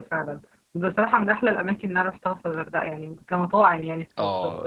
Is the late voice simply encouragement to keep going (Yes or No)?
No